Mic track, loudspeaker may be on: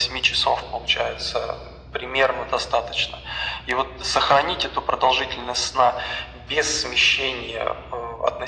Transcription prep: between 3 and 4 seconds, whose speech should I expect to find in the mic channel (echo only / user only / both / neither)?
echo only